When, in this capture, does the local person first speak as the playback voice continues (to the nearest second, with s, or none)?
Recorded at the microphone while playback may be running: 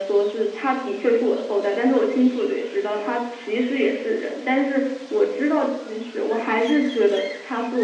none